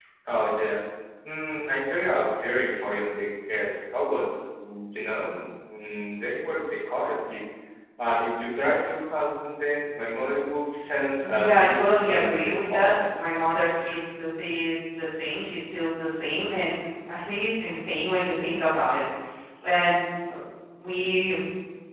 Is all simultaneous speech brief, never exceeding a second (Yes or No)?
No